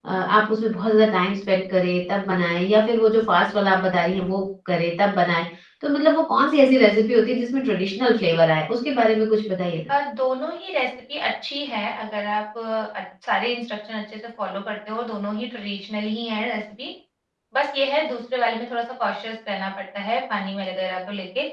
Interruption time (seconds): none

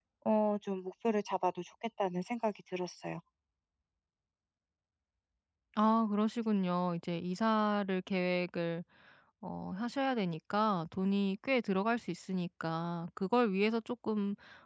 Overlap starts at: none

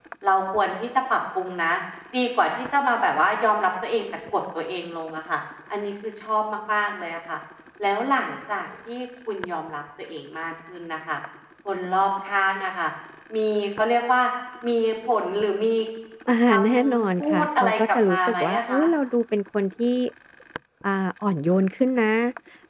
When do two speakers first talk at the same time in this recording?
16 s

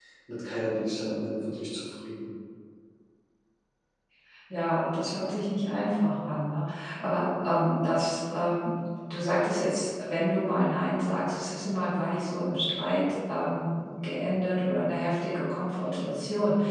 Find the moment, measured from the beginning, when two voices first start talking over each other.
none

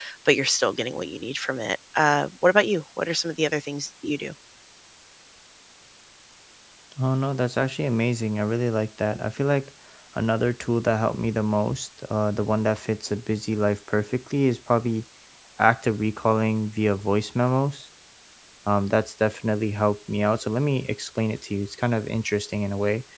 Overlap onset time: none

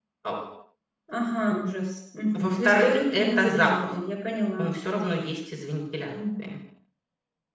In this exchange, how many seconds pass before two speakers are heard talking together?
2 s

